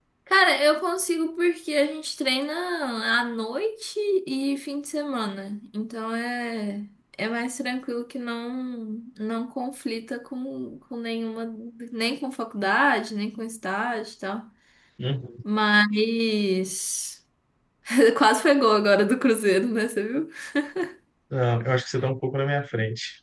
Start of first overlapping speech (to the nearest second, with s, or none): none